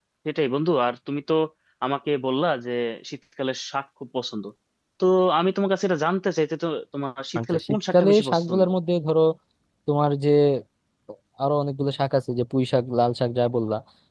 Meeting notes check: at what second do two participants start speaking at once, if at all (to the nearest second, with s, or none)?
7 s